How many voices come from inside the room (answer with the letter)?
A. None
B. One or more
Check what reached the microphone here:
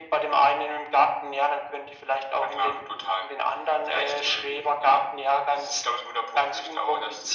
A